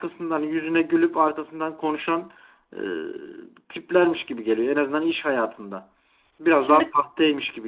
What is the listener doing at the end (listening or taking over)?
listening